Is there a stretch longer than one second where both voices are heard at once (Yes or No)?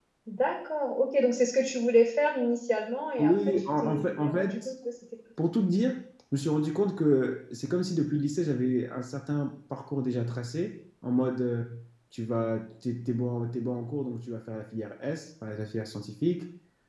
Yes